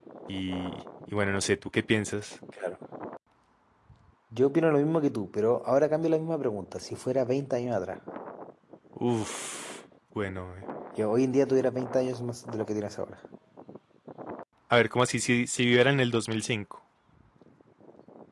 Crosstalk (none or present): none